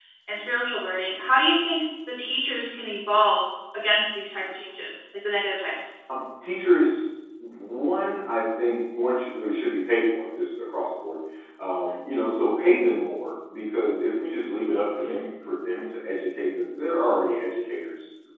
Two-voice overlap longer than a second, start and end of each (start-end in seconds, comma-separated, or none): none